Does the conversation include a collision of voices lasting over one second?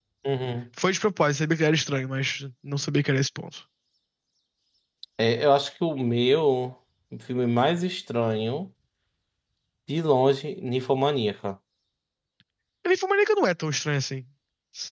No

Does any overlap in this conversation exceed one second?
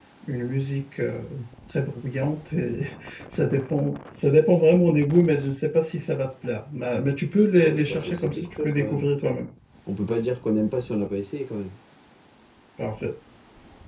Yes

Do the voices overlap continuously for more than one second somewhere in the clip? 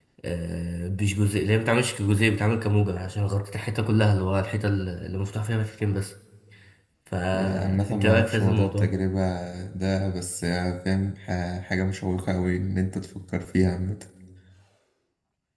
Yes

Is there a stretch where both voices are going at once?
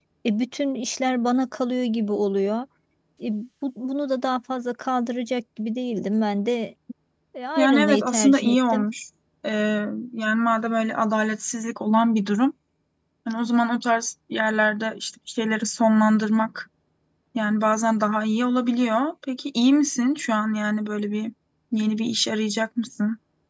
Yes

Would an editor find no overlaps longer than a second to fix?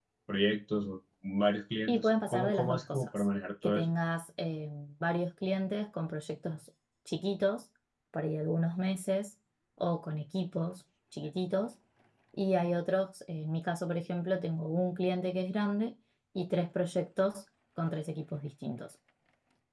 No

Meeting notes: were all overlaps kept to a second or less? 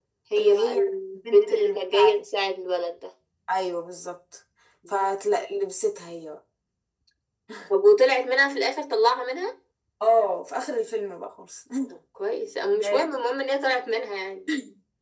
No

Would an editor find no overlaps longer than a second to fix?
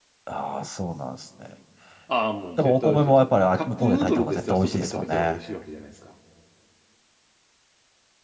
No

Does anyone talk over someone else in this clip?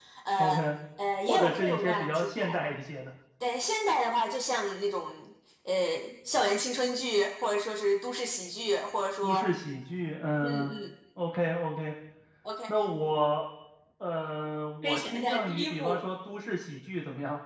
Yes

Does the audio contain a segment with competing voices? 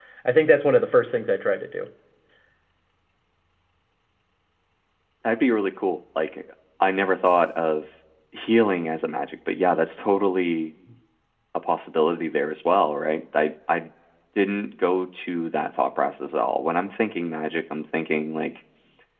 No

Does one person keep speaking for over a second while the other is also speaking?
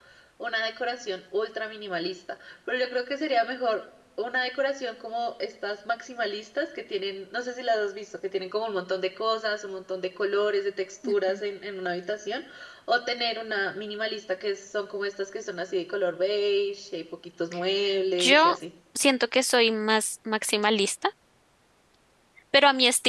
No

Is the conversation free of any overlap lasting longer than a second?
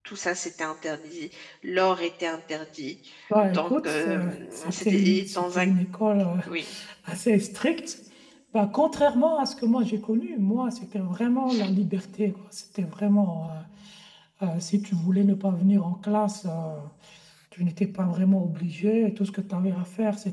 No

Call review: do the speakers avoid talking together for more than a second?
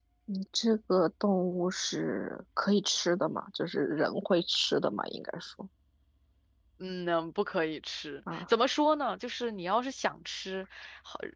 Yes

